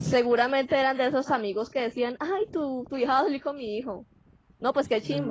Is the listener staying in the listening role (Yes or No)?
No